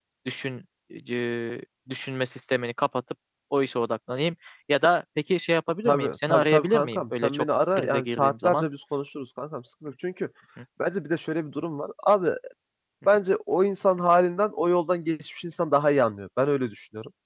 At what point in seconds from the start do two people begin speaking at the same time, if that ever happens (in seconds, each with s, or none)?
5.8 s